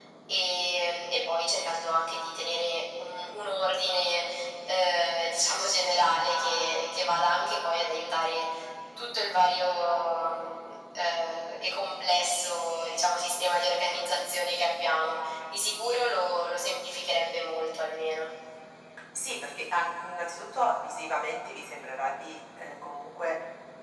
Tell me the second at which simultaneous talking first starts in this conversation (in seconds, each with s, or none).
none